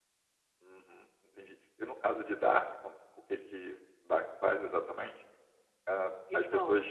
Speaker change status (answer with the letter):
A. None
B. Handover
A